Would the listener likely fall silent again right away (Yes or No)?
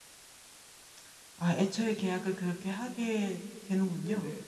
No